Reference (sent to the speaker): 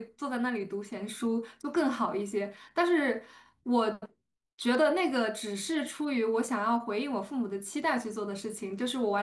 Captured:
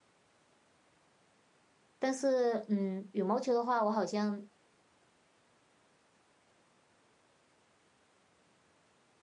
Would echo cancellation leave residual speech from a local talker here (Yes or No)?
Yes